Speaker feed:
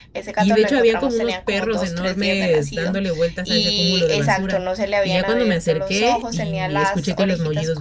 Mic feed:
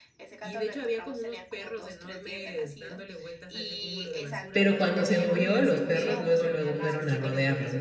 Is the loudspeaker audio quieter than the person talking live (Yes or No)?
Yes